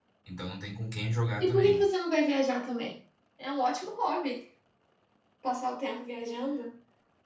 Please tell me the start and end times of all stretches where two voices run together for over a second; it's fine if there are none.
none

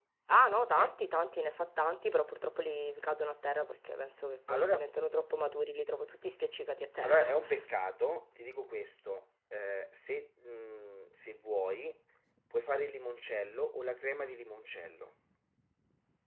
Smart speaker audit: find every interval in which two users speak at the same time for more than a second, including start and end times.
none

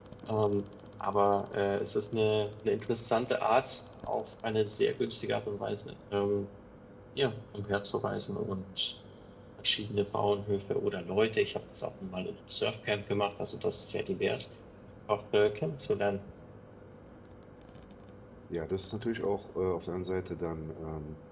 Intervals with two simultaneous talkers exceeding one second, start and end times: none

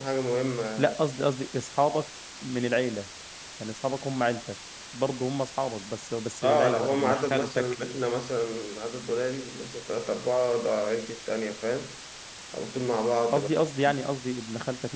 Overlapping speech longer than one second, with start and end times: 6.4-7.7

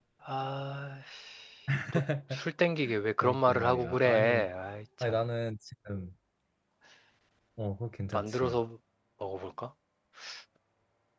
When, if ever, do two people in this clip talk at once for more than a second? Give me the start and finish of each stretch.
3.2-4.5

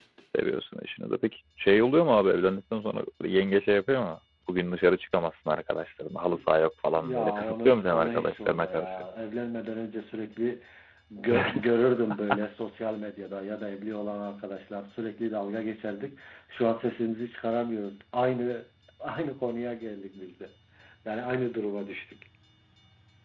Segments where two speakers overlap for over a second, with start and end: 7.0-8.9

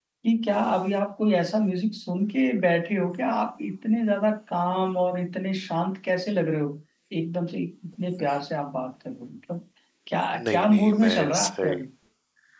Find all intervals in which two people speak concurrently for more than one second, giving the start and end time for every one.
10.4-11.8

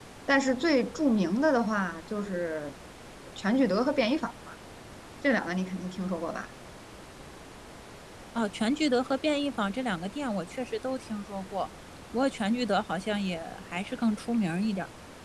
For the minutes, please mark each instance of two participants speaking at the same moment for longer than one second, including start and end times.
none

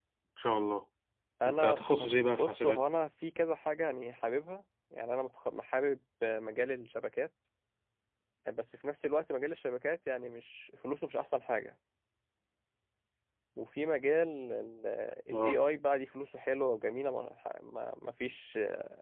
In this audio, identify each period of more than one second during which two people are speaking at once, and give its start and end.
1.5-2.8

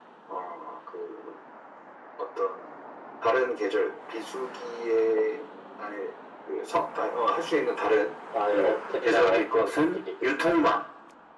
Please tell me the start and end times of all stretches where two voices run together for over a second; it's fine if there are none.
8.5-10.3

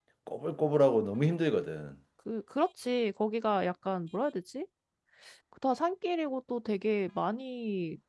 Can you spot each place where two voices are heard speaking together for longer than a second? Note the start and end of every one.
none

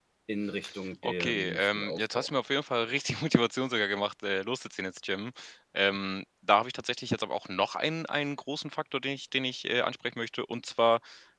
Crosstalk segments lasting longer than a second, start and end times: 1.0-2.3

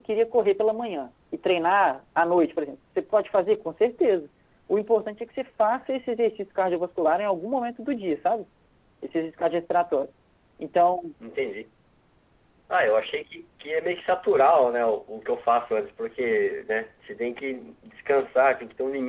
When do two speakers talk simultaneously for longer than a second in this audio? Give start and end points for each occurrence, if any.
none

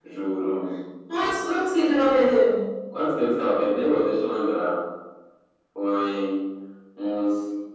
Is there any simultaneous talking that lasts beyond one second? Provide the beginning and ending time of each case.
none

